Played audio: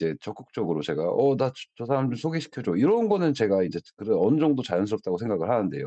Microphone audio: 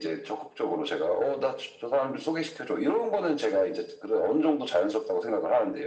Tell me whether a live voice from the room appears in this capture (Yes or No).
No